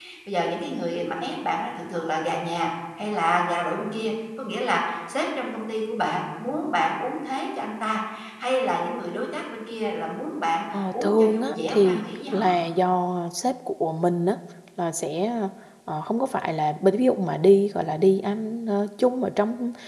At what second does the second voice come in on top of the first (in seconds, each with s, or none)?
10.7 s